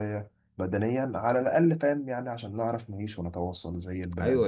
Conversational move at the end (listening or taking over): taking over